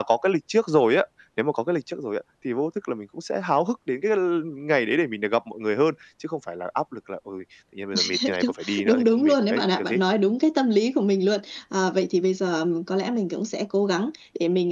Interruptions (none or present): present